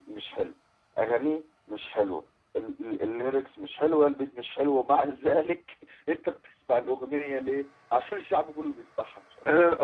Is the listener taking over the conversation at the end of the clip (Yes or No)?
Yes